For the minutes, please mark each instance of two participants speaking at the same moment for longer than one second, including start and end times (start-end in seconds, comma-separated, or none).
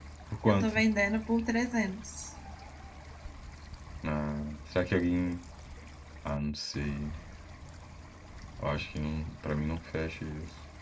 none